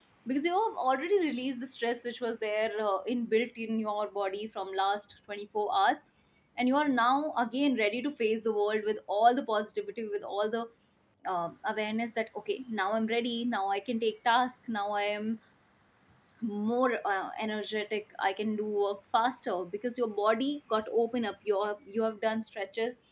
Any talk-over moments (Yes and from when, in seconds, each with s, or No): No